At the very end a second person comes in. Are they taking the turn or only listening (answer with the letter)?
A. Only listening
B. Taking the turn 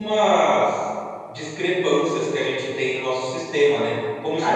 A